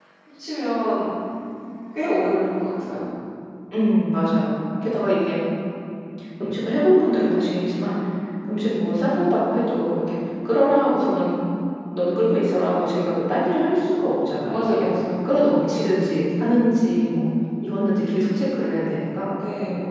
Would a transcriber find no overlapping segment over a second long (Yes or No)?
Yes